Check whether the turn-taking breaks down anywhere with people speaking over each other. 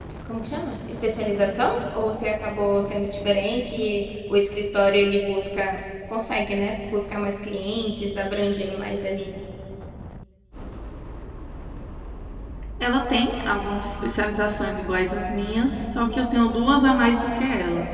No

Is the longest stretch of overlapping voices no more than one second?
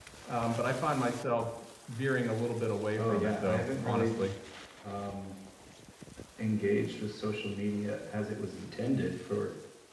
No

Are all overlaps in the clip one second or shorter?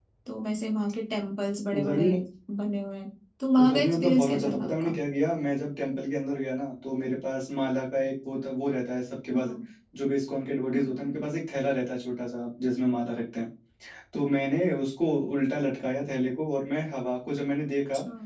No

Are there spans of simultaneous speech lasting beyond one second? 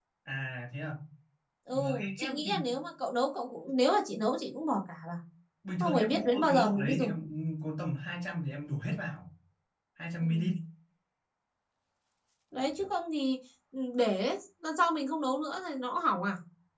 Yes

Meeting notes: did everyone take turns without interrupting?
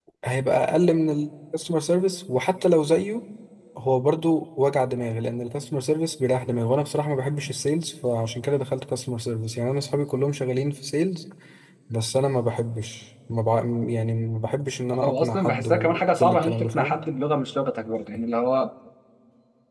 No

